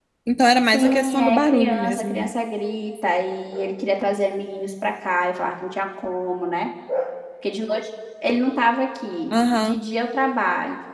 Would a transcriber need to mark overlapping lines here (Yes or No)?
Yes